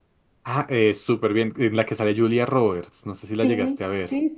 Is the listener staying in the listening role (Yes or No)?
No